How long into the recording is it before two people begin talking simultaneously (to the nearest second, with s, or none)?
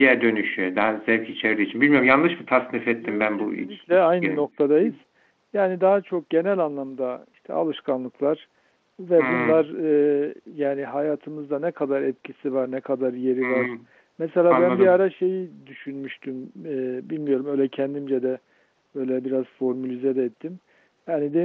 3 s